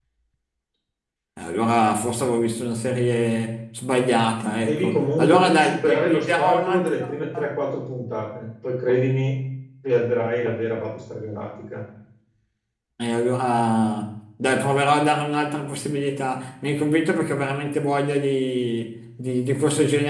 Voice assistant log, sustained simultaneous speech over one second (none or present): present